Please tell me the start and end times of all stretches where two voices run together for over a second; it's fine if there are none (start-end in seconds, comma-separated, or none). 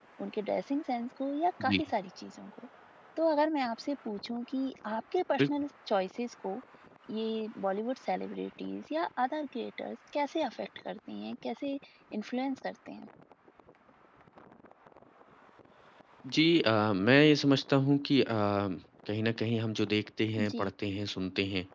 none